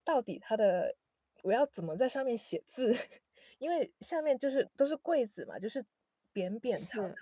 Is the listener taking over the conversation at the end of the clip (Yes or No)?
No